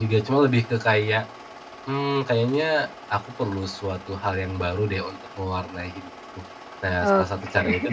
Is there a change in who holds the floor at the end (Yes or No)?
No